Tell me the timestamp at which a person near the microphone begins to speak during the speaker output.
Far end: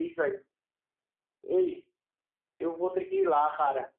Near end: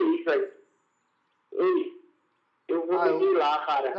2.9 s

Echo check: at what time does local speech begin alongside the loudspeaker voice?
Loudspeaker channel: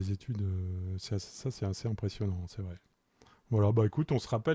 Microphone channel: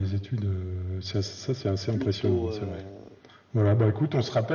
1.9 s

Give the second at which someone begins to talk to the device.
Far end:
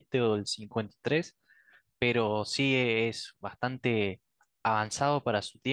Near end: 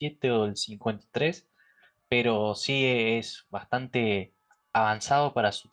none

